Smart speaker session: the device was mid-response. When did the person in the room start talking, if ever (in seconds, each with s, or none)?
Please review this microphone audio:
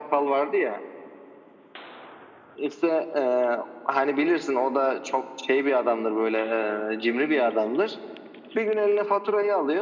none